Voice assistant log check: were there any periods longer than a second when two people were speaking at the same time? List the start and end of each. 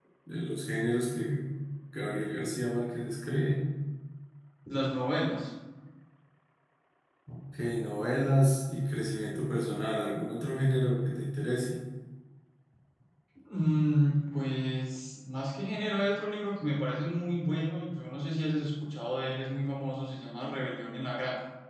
none

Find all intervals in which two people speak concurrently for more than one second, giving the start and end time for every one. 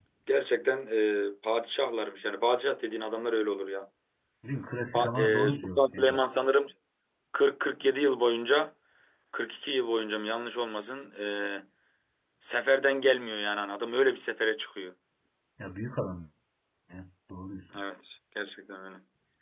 4.9-6.2

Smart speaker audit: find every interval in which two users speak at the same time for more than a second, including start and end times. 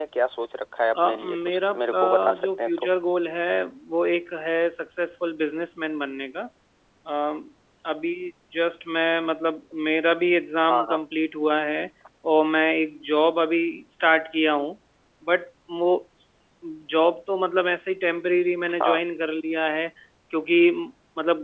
1.0-2.9

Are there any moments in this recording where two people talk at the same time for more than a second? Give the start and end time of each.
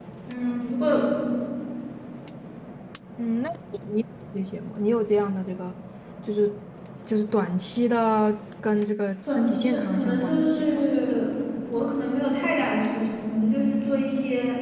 9.3-10.8

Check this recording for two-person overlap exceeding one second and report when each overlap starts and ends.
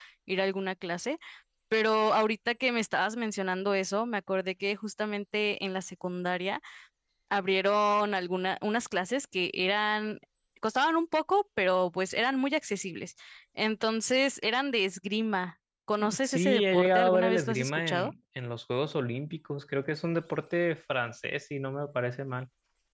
16.2-18.1

